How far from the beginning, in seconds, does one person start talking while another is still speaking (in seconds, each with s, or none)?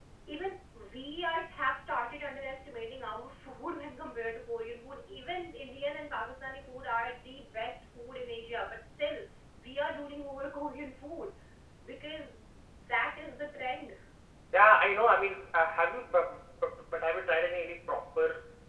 none